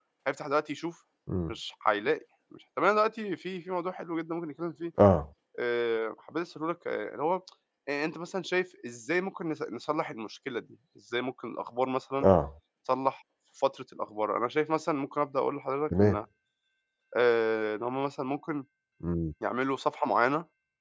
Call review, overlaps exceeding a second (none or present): none